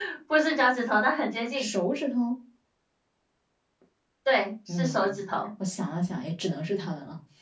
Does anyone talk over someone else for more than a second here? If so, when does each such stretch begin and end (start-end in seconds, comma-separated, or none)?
none